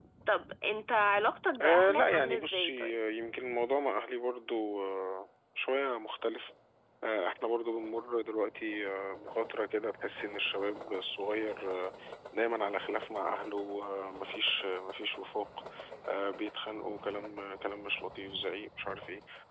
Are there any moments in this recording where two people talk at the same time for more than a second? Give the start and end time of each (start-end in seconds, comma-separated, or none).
1.6-3.0